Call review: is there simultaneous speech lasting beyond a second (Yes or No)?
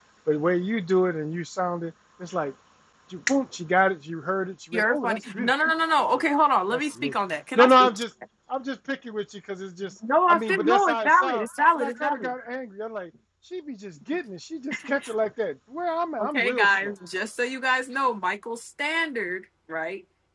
Yes